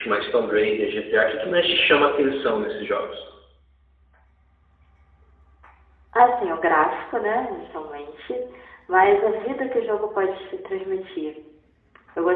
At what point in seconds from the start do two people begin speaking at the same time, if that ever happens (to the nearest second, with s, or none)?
none